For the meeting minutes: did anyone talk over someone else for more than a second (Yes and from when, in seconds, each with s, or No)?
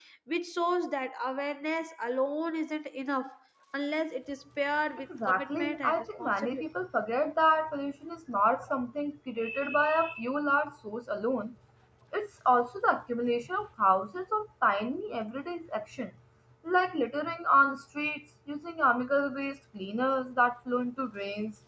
Yes, from 5.3 s